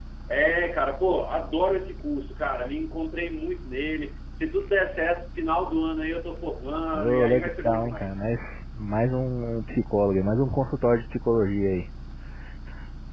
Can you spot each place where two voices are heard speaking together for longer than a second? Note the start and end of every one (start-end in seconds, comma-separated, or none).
6.9-8.2